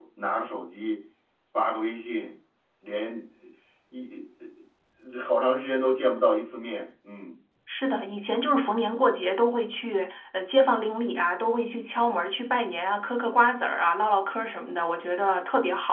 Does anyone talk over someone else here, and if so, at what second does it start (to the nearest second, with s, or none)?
none